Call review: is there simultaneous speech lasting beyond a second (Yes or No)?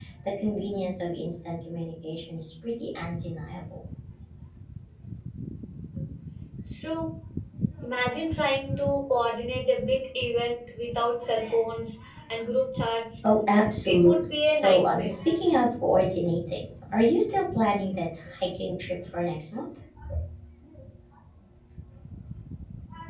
Yes